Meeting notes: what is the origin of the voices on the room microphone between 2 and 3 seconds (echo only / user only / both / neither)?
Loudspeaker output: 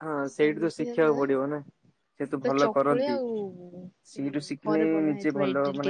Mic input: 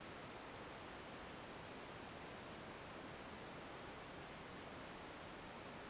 neither